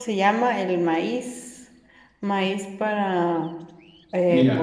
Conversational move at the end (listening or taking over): taking over